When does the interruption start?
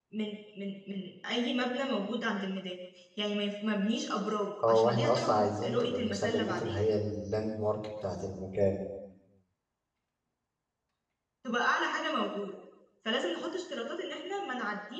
5 s

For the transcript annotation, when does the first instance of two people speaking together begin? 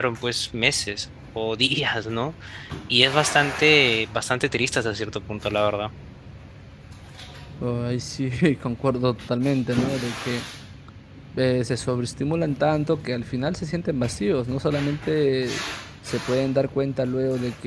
none

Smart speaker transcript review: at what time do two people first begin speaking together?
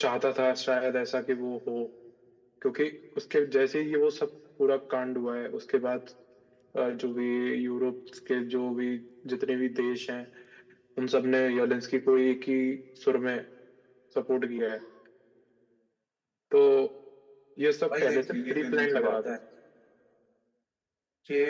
18 s

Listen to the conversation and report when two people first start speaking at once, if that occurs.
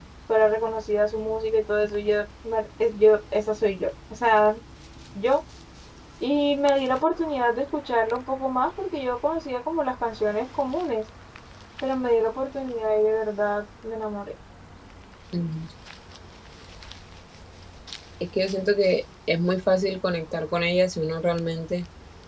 none

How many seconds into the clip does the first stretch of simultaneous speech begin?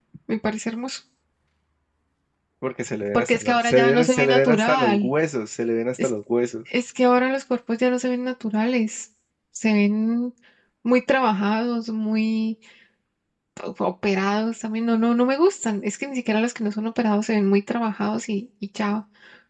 3 s

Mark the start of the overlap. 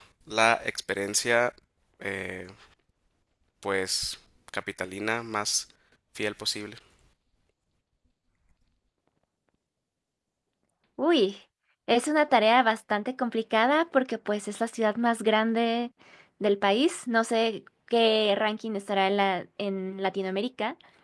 none

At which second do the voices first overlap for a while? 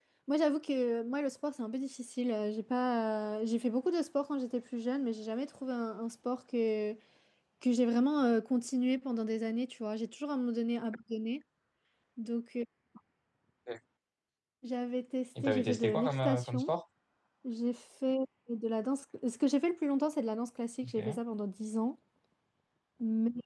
15 s

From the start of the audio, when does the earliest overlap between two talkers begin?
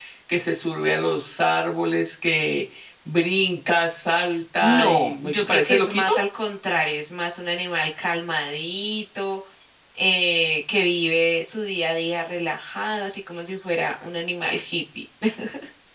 5 s

